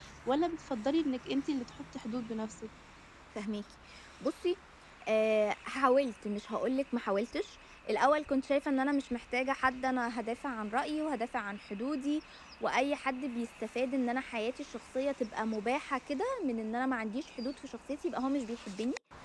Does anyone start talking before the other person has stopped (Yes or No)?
No